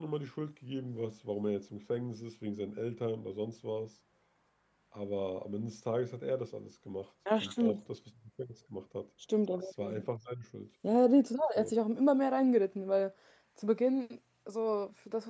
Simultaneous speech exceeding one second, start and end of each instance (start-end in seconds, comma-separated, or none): none